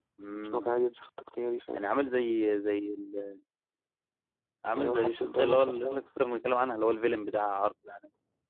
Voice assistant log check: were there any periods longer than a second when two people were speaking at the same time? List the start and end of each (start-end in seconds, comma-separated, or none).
4.8-6.0